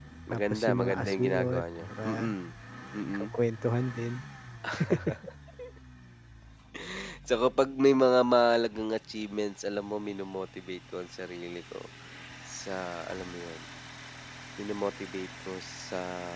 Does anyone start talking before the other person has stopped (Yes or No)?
Yes